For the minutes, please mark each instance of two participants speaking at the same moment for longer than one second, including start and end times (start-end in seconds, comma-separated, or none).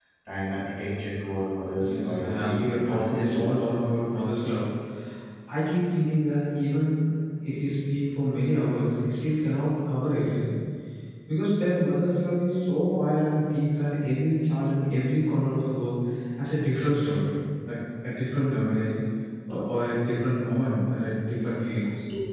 1.8-3.7